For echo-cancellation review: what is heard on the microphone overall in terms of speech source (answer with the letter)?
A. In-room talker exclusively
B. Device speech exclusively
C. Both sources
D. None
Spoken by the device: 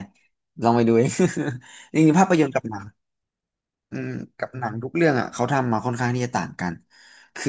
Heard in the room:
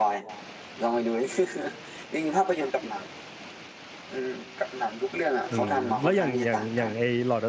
C